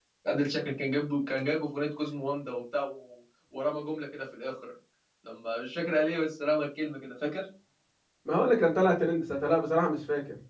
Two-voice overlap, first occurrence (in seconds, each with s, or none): none